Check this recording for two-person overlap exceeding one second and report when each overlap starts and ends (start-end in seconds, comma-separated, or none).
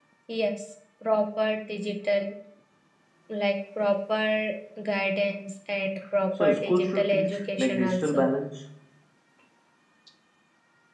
6.4-8.3